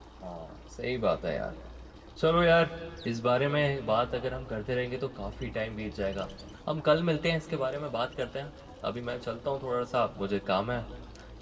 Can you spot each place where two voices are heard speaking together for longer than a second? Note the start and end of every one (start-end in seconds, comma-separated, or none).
none